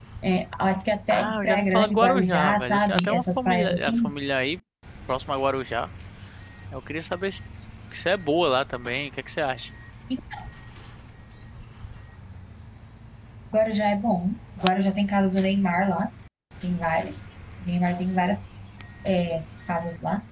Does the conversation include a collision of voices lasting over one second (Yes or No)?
Yes